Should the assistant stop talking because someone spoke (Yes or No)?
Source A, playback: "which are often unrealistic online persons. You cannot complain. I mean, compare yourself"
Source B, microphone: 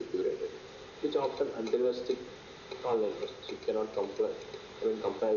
No